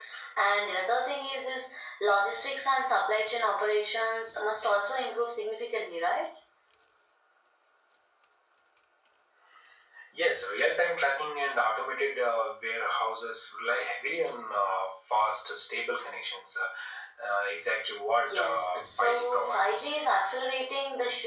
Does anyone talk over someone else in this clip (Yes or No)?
Yes